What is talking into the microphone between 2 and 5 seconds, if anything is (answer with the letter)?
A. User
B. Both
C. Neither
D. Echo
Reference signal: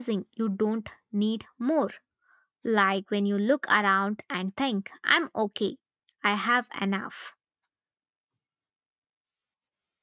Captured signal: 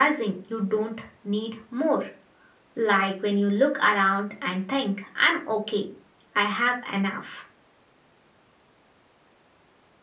D